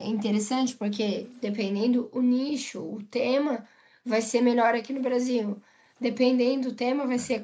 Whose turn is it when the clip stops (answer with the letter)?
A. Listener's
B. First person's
B